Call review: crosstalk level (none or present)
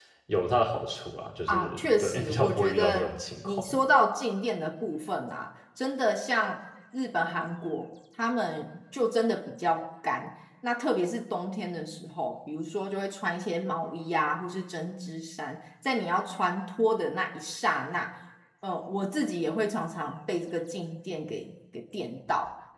present